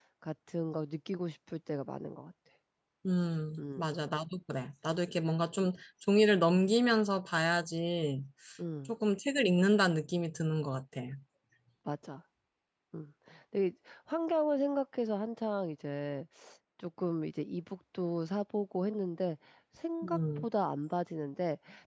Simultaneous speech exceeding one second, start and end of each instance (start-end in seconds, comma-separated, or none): none